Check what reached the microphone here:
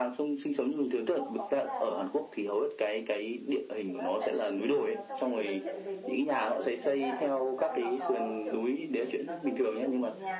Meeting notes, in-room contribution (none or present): present